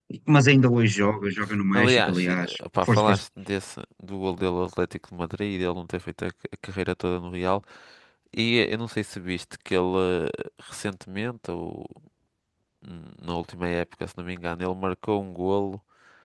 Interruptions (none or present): present